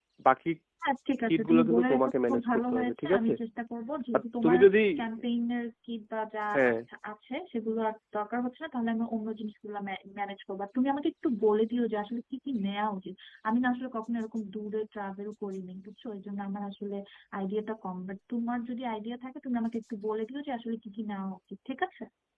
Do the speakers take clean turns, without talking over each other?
No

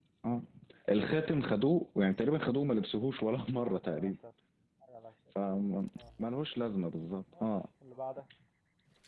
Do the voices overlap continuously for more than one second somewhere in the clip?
No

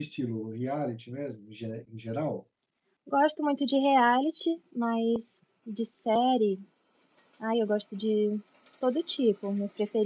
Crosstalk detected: No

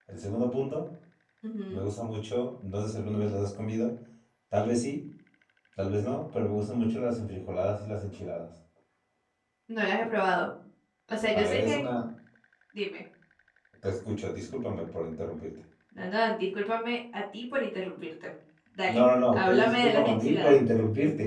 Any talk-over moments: Yes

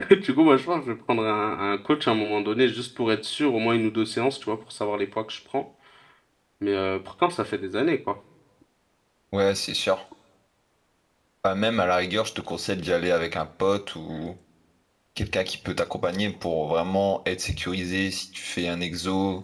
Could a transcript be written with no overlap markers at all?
Yes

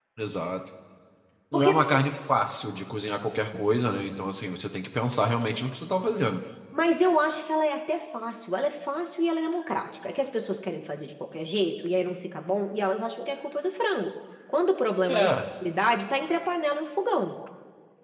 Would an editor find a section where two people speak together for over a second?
No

